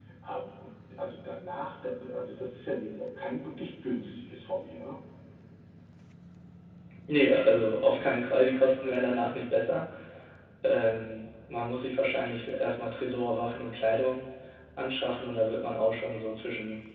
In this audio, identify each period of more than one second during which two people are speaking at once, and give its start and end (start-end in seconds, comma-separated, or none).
none